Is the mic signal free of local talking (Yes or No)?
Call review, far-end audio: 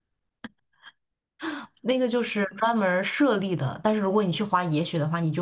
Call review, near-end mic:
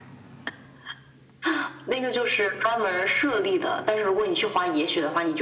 Yes